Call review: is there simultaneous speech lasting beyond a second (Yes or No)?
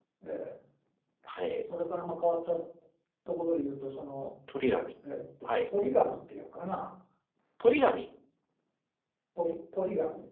No